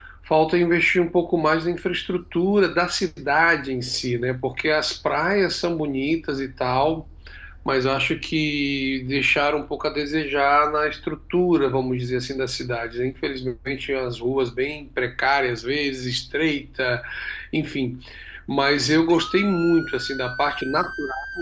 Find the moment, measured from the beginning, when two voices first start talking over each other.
none

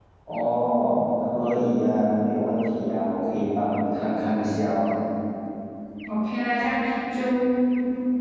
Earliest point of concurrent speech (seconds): none

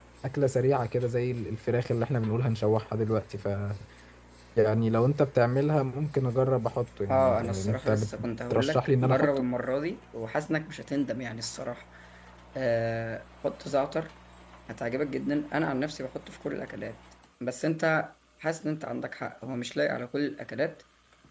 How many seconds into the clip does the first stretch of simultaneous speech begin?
7.1 s

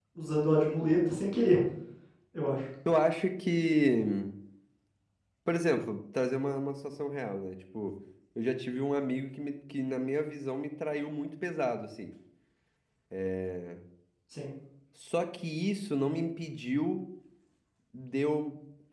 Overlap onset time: none

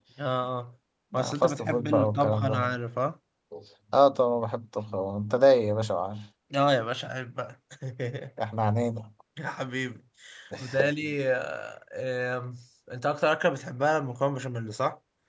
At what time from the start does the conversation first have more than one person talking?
1.2 s

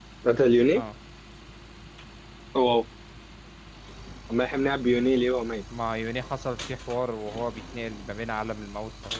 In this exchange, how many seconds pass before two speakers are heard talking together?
none

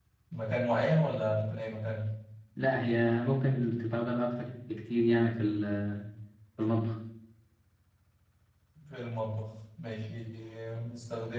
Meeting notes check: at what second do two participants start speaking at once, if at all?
none

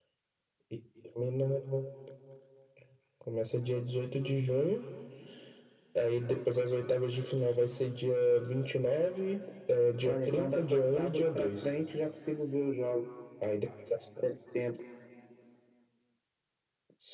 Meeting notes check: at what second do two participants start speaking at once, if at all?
10.1 s

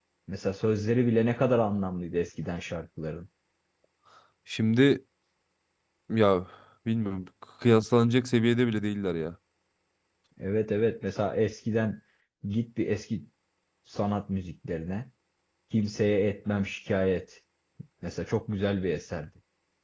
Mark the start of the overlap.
none

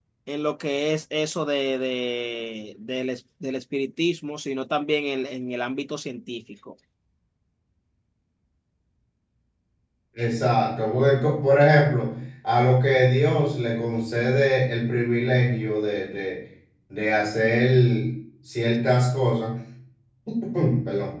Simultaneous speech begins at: none

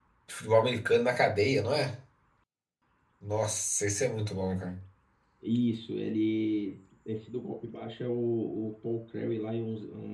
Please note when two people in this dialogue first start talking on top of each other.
none

